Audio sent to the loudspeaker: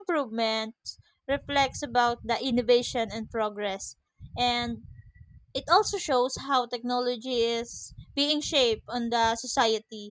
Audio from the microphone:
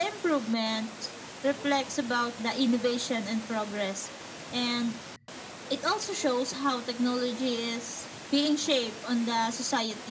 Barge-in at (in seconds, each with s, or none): none